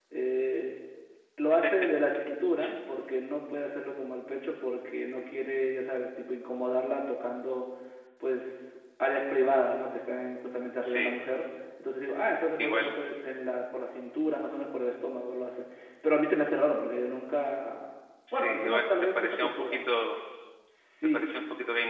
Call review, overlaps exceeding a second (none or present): present